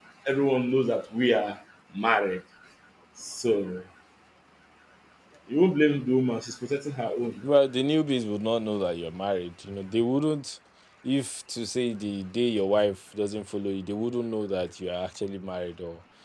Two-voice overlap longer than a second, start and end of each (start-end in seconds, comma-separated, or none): none